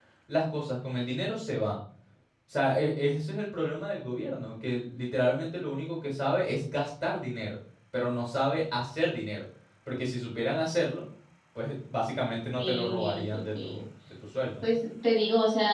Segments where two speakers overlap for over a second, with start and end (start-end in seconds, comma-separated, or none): 12.6-13.8